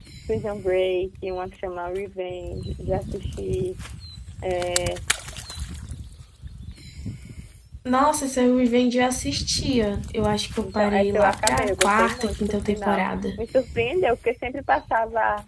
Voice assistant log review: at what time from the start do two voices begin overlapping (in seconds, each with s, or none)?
10.6 s